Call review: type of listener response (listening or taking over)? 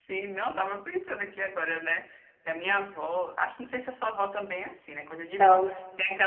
listening